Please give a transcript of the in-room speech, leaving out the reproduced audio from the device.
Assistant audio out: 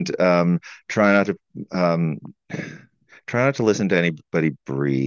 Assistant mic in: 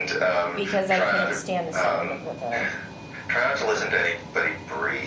because I couldn't stand the sound of the the,

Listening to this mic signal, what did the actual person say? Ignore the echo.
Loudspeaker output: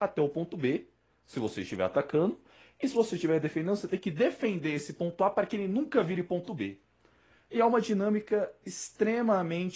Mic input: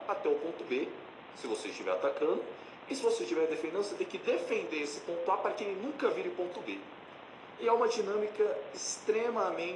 none

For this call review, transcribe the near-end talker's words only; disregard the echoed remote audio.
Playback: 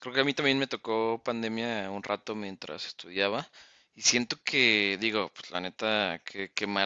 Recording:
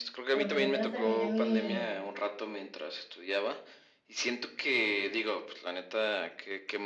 Pero, pues, apenas terminé mi

